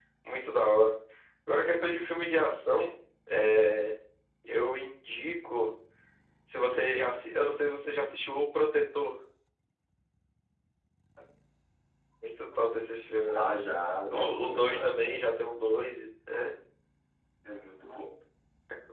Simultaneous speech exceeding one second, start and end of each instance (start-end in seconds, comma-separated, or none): 14.1-15.9